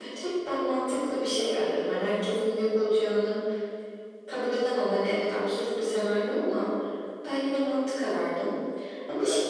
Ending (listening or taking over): listening